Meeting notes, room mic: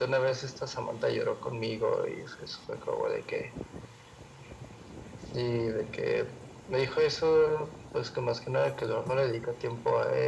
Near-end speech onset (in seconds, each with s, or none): none